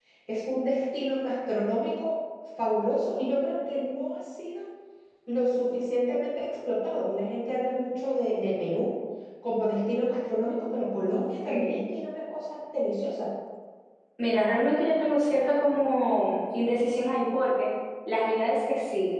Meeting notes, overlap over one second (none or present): none